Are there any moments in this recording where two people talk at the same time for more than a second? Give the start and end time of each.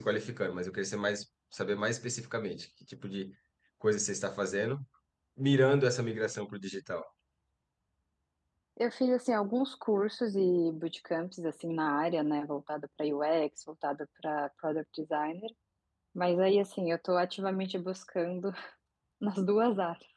none

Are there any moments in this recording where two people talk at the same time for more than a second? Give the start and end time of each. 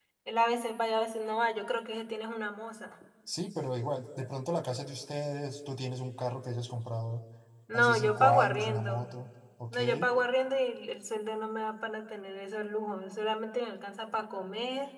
7.7-9.1

